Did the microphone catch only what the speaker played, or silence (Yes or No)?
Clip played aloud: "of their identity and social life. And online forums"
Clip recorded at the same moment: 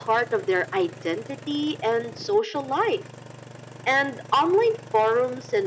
Yes